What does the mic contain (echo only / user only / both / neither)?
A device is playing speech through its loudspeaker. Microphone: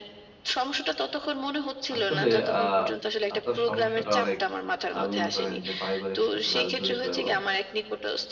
both